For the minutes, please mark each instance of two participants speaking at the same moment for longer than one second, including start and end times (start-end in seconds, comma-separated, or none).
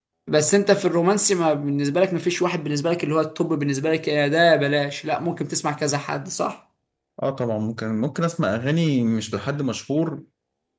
none